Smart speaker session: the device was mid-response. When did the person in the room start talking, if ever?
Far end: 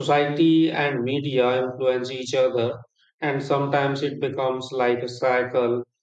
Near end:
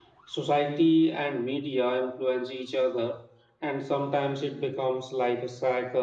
none

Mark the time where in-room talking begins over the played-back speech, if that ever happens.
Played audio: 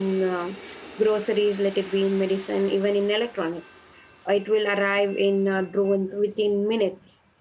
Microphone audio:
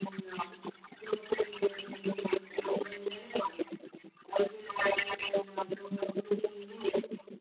none

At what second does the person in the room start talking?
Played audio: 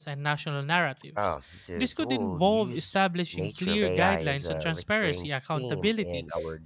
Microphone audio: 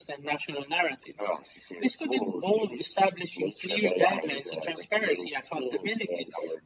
none

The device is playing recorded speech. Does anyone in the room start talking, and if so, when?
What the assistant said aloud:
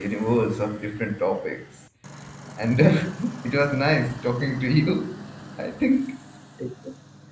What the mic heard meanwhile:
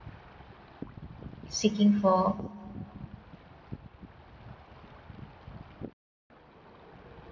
1.6 s

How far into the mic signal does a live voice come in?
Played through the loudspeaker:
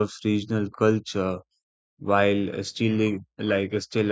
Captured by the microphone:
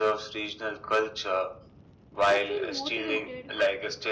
2.3 s

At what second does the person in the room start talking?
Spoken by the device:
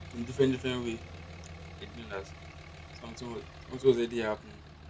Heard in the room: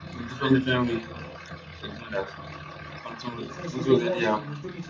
3.5 s

